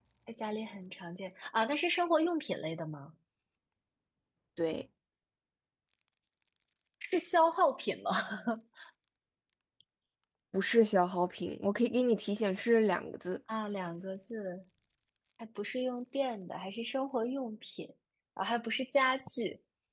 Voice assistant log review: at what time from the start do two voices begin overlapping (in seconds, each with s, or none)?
none